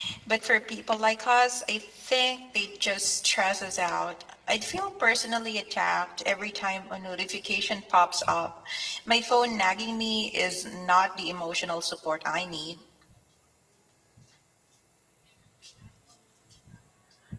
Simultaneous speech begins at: none

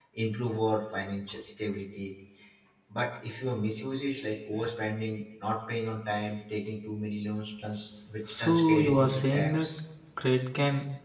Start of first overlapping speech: 8 s

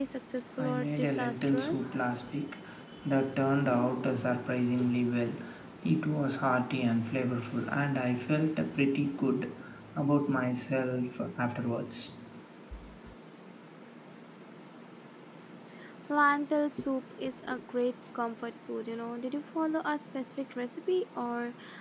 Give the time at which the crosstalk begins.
1 s

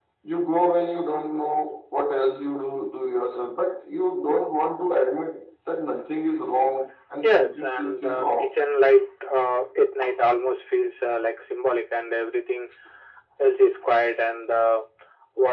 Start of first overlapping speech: 7 s

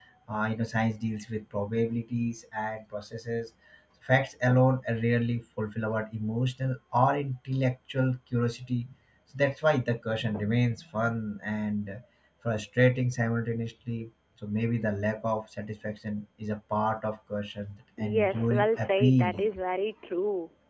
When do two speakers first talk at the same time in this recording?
18 s

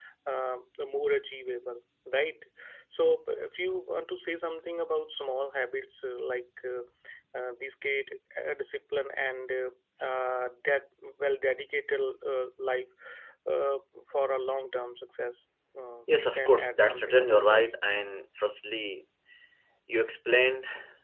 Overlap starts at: 16 s

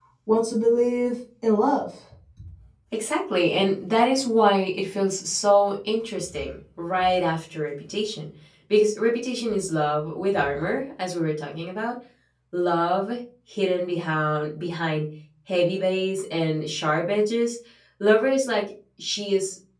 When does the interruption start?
none

